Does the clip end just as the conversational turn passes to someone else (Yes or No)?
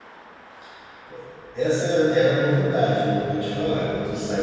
Yes